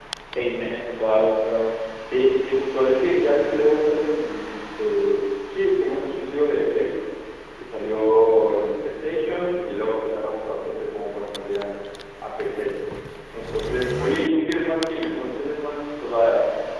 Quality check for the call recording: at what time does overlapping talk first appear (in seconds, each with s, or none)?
none